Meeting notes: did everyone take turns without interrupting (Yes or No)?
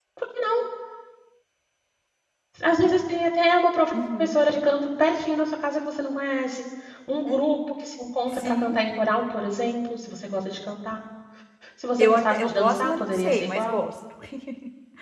No